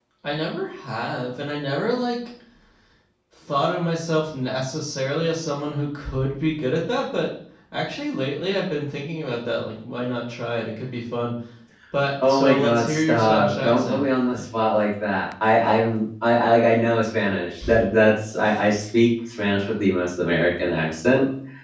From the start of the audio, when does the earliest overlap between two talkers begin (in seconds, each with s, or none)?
12.3 s